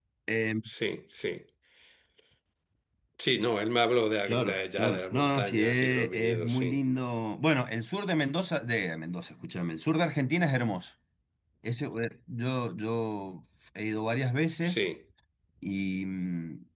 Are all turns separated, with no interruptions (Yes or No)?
No